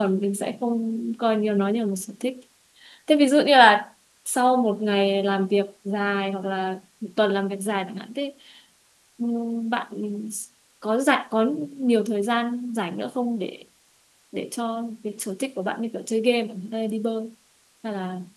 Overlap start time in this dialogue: none

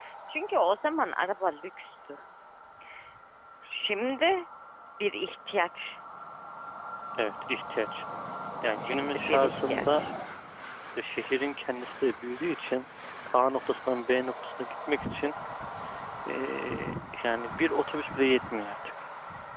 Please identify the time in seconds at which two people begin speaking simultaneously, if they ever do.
8.8 s

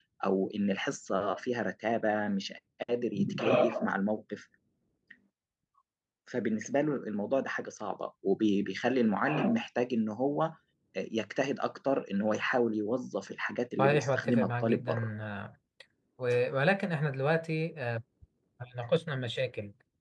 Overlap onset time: 13.8 s

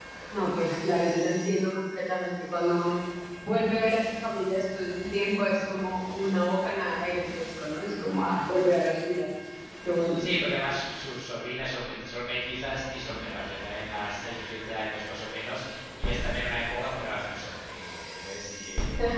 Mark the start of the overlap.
none

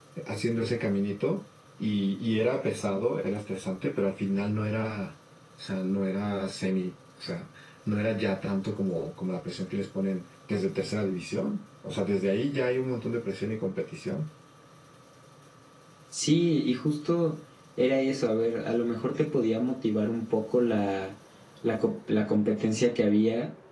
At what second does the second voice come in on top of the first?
none

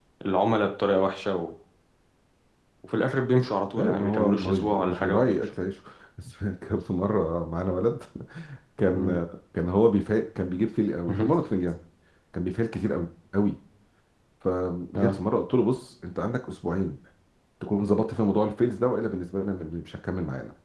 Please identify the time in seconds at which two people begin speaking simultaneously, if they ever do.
3.8 s

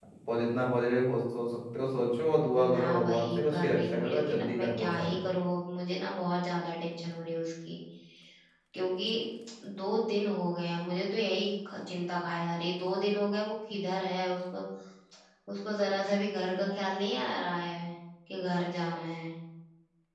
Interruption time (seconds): 2.5 s

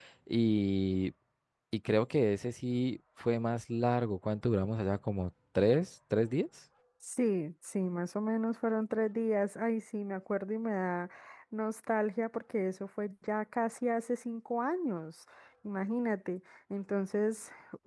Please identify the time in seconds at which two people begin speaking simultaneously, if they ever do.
none

